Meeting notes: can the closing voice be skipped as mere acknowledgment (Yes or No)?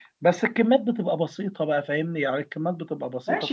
No